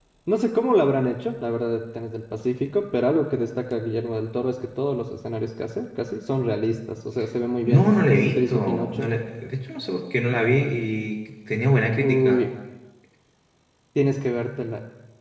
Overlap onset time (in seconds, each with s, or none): 7.7 s